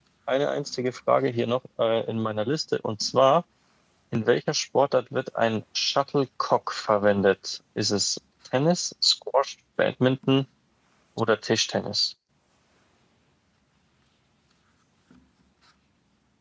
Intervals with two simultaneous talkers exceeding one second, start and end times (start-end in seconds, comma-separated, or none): none